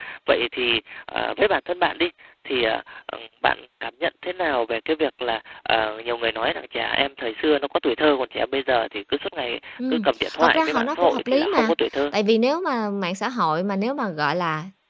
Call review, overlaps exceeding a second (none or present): present